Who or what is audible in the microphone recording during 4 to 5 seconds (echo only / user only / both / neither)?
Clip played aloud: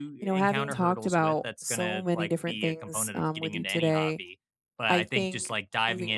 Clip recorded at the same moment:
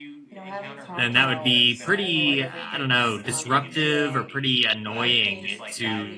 both